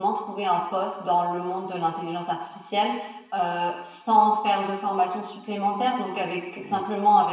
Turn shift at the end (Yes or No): No